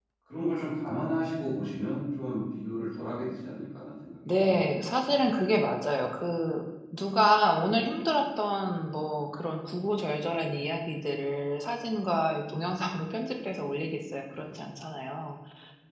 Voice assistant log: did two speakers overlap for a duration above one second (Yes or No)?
Yes